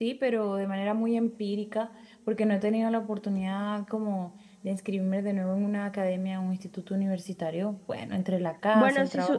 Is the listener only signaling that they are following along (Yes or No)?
No